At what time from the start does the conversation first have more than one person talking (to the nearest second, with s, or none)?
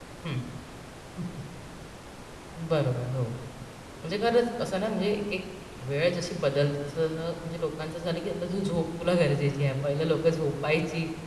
none